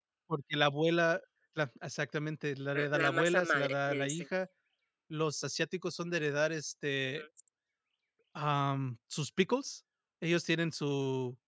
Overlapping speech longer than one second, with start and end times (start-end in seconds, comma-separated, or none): 2.7-4.2